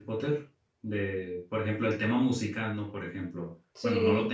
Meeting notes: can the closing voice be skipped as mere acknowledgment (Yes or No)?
Yes